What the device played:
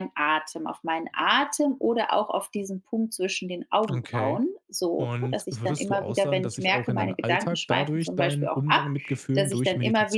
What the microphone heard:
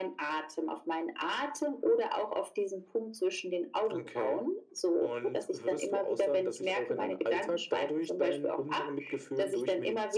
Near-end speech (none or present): none